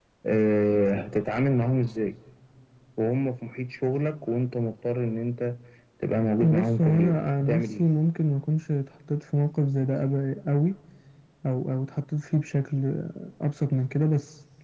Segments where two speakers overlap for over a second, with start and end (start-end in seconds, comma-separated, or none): 6.4-7.8